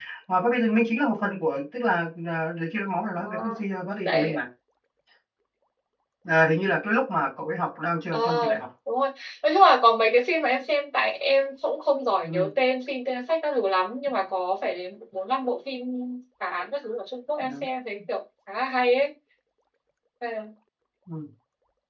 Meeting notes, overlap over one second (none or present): none